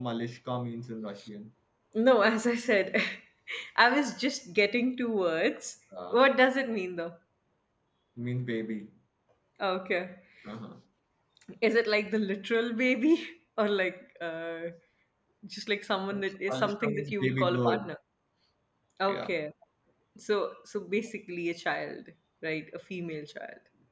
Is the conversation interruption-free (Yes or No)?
No